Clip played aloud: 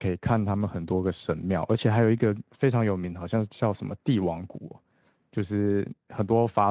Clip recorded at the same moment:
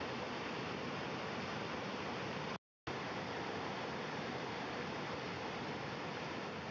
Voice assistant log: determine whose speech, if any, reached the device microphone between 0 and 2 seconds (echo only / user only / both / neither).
neither